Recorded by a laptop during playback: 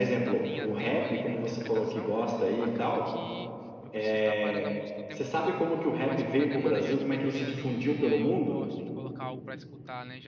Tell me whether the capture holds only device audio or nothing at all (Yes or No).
No